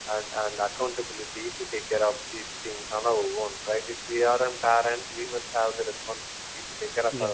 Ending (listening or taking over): listening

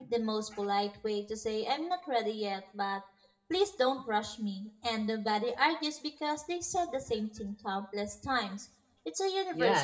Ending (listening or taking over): taking over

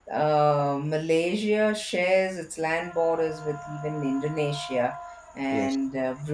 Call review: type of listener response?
listening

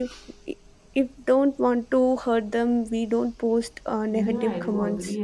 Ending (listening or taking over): taking over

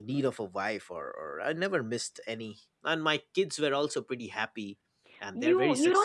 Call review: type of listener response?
taking over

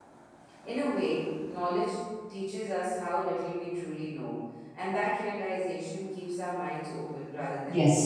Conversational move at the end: taking over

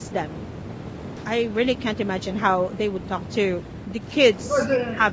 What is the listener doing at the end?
taking over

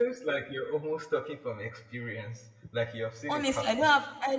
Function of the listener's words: taking over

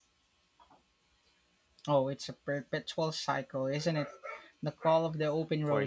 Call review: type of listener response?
taking over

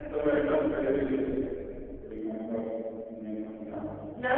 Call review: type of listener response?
taking over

